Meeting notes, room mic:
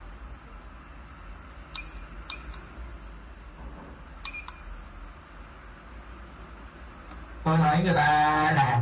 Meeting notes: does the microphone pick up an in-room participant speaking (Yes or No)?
Yes